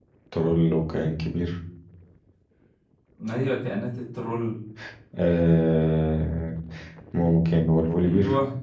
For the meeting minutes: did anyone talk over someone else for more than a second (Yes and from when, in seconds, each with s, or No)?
No